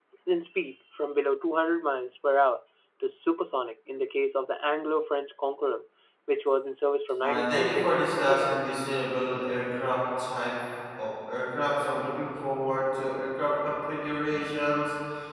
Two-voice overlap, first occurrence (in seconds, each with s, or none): 7.2 s